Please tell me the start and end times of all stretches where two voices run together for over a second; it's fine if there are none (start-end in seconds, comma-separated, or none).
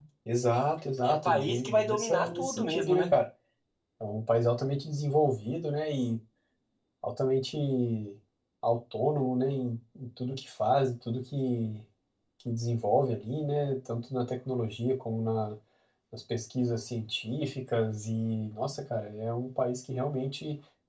1.0-3.2